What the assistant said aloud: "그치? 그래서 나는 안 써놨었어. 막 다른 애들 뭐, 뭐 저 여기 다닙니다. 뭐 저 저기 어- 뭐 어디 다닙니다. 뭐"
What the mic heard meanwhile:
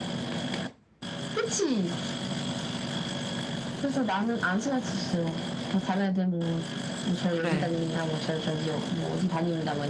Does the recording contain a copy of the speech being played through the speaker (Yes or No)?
Yes